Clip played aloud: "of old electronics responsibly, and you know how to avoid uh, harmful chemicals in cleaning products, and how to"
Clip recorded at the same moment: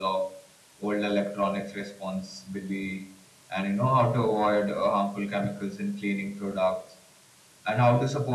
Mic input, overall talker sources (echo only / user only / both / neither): echo only